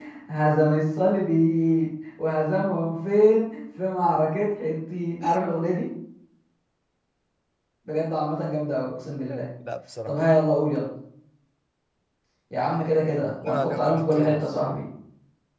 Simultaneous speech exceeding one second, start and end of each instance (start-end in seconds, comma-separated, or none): 13.2-14.4